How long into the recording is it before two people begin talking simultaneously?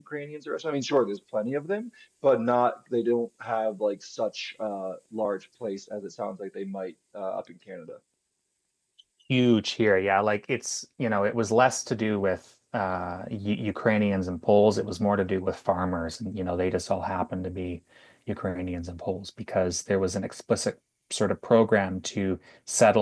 none

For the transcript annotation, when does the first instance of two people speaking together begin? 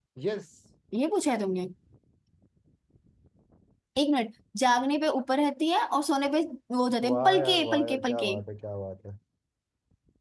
7.0 s

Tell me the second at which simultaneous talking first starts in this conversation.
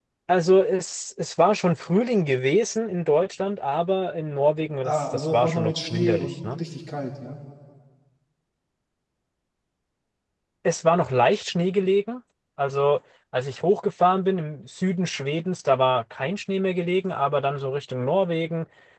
4.8 s

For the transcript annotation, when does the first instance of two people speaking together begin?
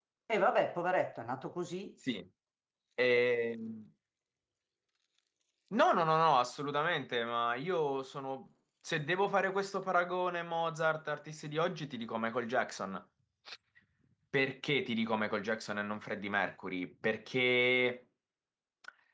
none

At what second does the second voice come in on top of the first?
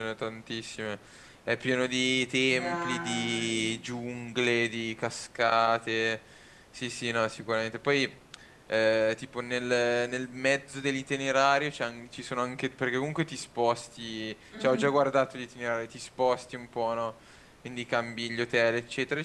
2.6 s

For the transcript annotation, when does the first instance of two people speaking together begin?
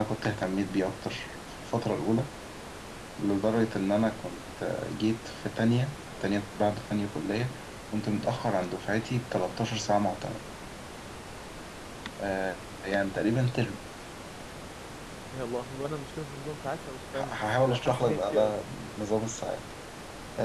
17.1 s

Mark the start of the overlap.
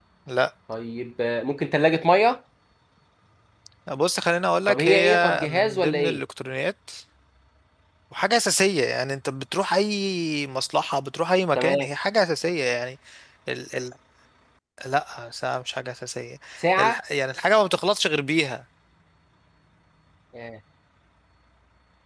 4.7 s

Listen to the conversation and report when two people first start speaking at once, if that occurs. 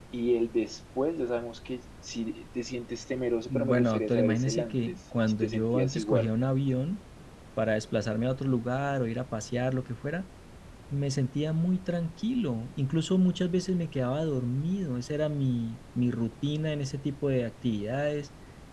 3.5 s

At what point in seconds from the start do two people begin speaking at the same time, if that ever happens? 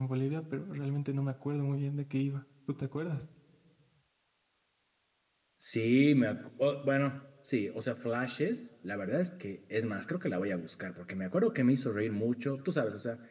none

